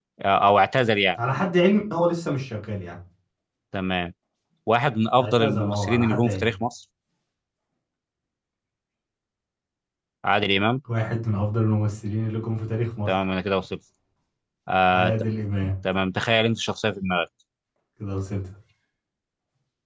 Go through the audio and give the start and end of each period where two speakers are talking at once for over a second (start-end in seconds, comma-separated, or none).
5.2-6.5